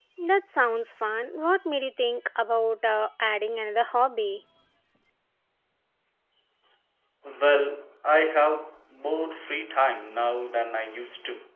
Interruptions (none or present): none